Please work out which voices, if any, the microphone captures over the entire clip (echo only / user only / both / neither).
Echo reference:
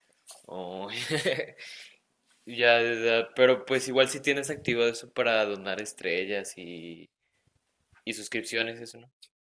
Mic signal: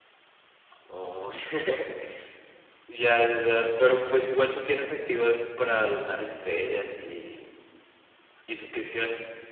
echo only